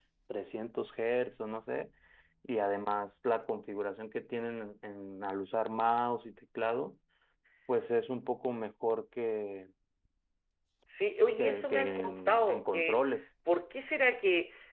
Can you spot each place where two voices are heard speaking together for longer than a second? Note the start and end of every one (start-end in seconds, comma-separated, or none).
11.4-13.0